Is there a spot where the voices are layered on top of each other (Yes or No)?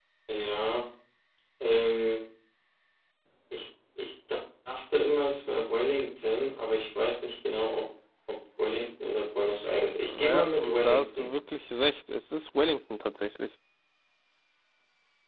Yes